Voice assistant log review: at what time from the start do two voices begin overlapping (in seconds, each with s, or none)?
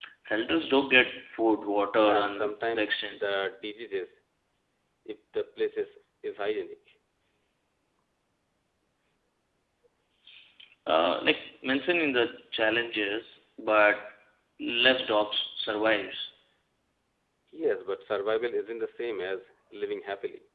1.9 s